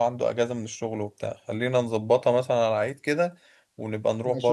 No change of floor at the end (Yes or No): No